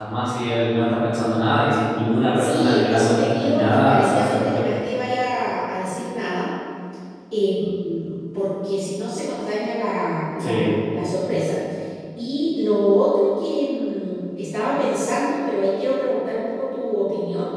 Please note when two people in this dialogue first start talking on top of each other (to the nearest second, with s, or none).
2 s